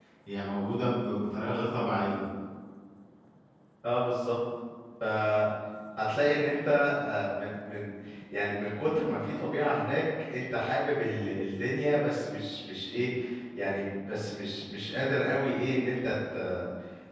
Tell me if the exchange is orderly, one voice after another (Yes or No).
Yes